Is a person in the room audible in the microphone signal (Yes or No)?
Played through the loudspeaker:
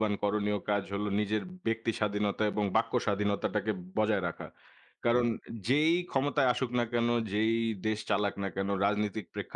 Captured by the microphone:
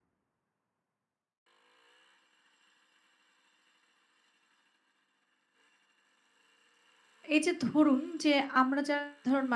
Yes